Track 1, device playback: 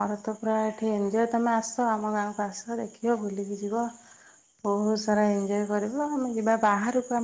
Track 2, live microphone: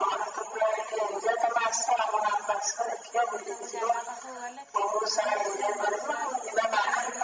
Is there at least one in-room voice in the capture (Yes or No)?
Yes